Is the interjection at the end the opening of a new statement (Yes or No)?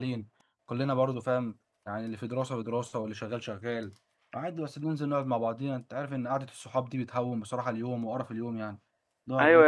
Yes